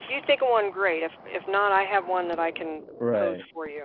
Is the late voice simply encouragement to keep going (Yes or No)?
No